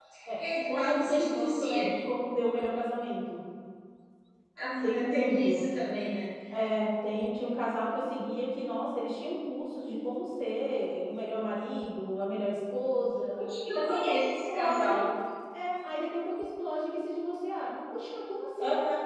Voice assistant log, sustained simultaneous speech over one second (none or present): present